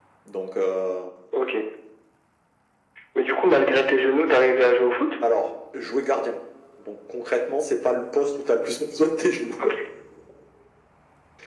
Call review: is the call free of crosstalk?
Yes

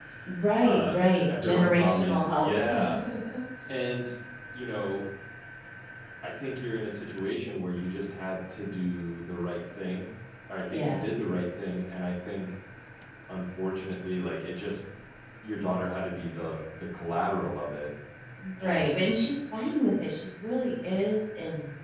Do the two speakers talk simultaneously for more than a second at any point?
Yes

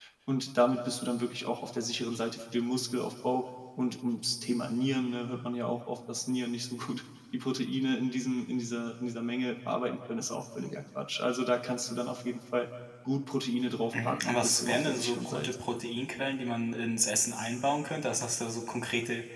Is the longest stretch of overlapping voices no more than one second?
No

